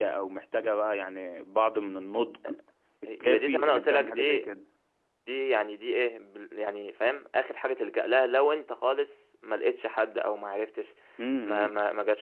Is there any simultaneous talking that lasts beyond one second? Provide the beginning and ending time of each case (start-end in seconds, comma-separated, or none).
3.2-4.5